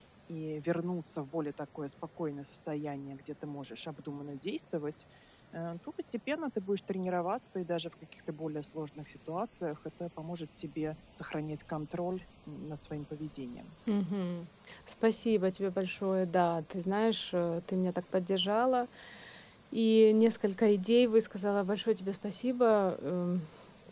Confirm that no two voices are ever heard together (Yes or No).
Yes